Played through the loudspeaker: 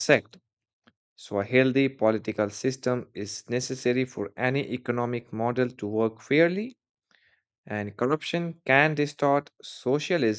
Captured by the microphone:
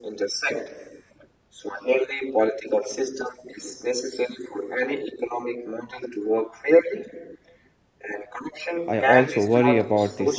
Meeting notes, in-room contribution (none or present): present